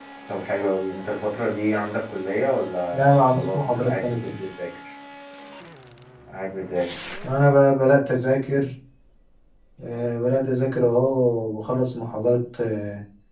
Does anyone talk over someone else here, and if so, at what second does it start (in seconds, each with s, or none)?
2.9 s